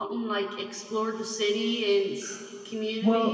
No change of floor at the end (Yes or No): No